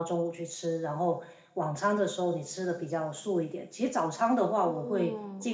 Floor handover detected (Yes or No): No